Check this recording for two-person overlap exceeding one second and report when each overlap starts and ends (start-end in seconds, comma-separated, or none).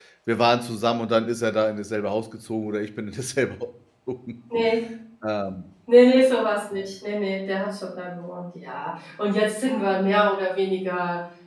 none